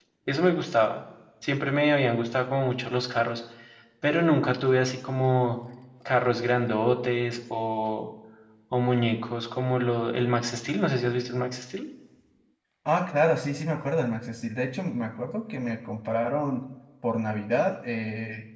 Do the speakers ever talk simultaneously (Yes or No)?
No